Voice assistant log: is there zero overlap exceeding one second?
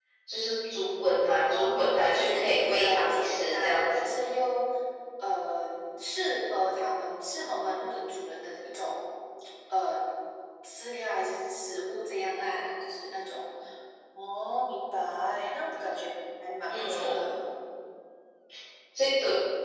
No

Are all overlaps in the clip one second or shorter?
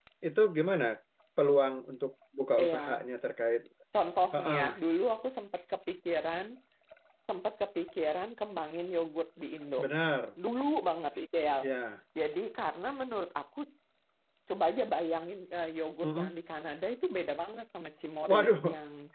Yes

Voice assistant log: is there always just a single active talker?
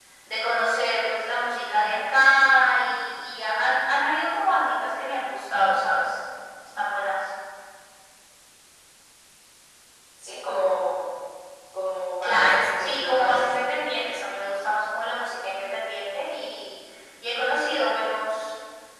No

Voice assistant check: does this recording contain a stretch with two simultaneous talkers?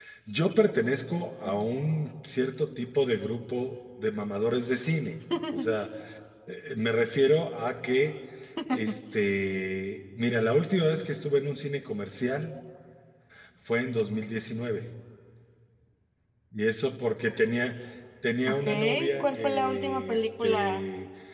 Yes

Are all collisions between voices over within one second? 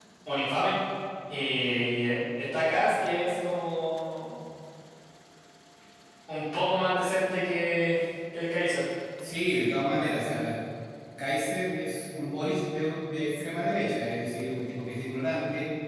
Yes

